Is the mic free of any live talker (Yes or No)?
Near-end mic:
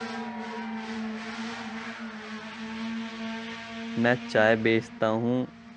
No